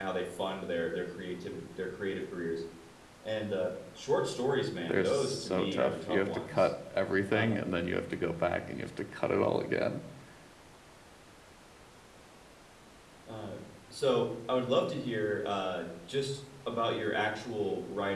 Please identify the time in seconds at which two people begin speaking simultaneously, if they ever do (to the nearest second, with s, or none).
5 s